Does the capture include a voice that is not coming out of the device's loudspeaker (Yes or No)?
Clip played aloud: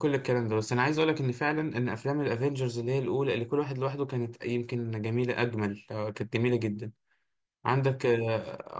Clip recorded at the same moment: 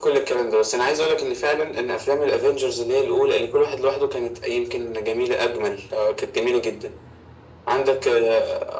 No